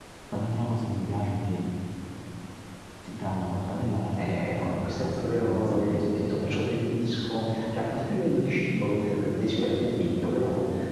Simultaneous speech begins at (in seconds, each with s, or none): 4.2 s